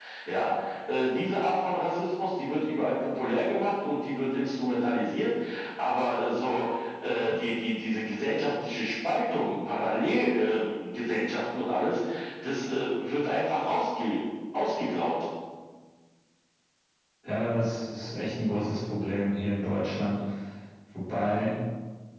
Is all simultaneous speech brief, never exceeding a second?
Yes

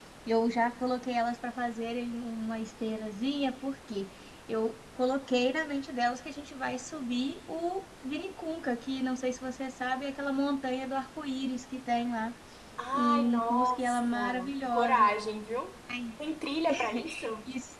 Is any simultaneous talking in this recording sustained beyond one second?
Yes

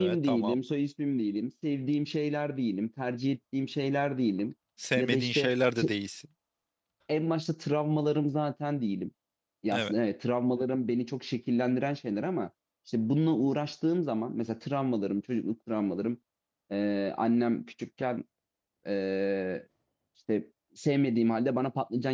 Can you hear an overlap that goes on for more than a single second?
No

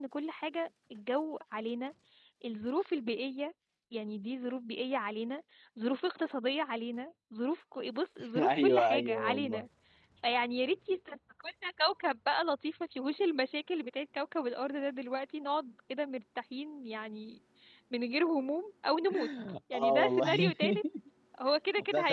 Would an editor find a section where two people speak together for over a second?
Yes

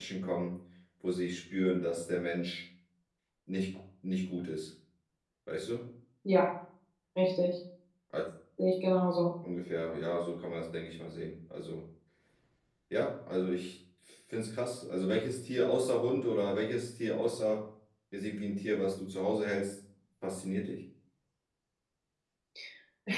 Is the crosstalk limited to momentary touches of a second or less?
Yes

